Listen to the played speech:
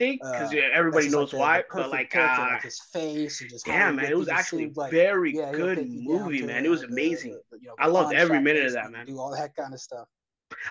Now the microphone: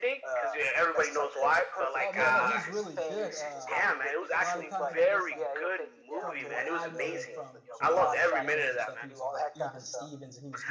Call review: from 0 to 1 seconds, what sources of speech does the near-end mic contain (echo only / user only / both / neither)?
echo only